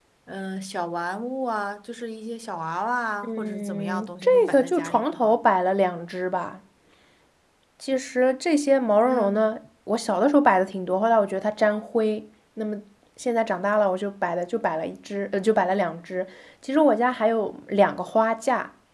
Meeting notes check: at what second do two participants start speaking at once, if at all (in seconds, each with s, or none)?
3.2 s